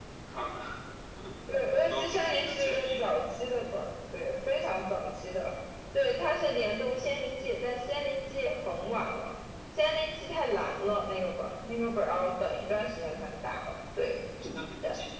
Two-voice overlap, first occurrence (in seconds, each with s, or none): 1.7 s